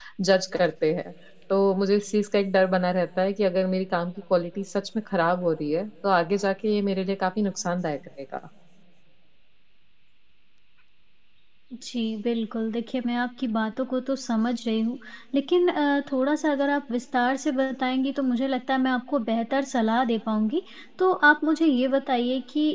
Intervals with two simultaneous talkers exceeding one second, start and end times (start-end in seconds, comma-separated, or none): none